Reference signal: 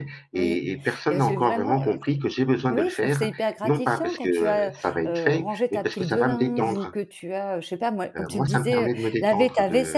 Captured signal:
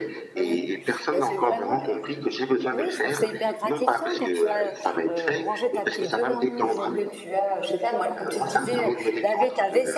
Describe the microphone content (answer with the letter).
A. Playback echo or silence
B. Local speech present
A